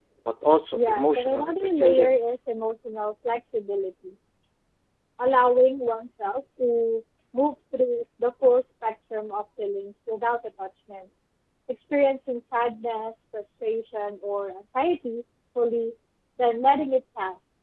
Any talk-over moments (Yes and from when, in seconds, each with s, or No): Yes, from 0.7 s